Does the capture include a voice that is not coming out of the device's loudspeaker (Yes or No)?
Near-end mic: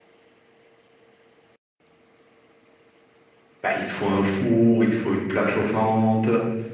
Yes